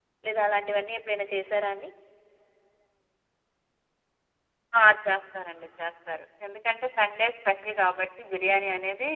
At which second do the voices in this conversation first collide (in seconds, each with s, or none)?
none